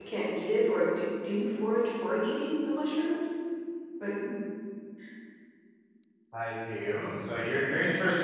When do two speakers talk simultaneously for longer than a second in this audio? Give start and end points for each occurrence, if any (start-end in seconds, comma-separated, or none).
none